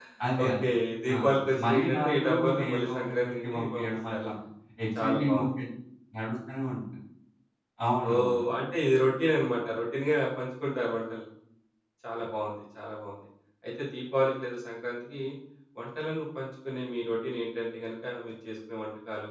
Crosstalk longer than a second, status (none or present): present